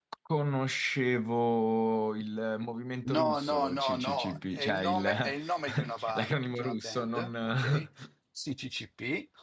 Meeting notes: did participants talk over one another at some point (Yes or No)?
Yes